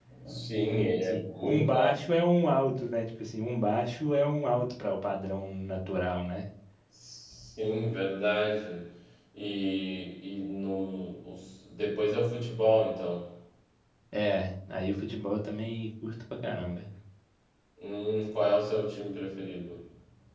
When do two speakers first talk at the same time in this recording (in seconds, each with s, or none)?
0.7 s